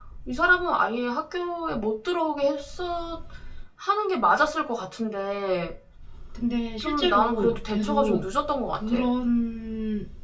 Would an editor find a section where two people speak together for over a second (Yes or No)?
Yes